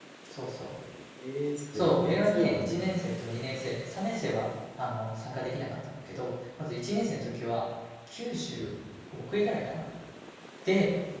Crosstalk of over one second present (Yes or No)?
Yes